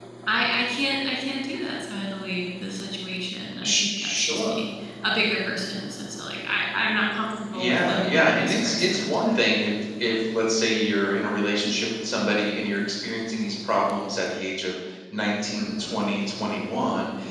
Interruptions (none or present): present